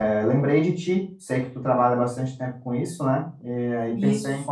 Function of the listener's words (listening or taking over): listening